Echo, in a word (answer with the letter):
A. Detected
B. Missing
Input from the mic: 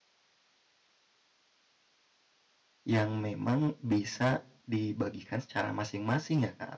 B